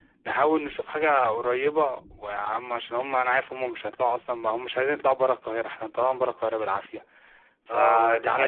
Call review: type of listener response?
taking over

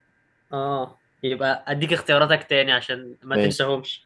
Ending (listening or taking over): listening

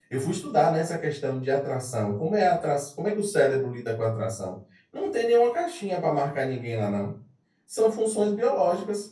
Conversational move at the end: listening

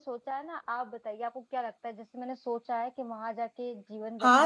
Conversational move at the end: taking over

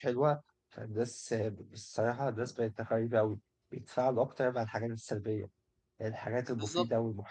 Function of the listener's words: listening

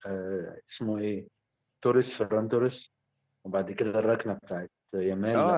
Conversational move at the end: taking over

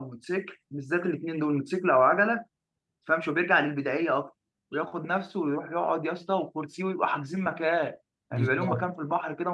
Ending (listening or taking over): listening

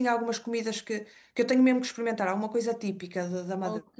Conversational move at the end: taking over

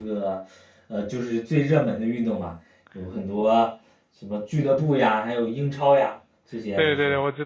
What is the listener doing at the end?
taking over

